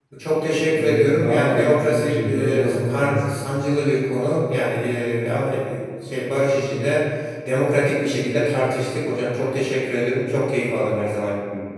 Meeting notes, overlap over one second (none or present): present